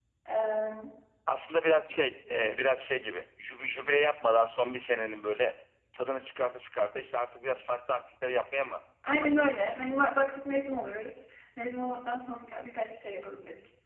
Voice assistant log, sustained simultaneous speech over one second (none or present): none